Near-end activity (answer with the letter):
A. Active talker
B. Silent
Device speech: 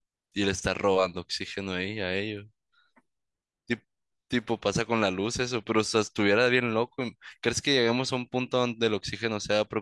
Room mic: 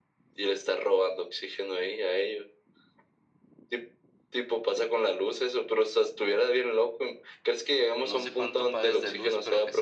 A